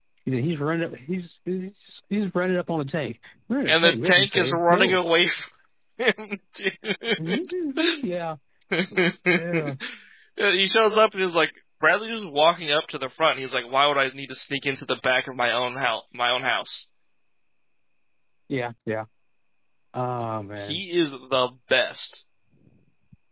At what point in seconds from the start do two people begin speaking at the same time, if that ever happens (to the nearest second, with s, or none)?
4 s